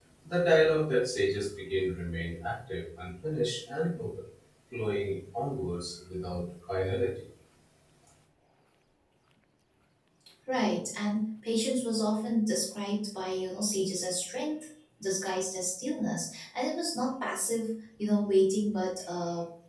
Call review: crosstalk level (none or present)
none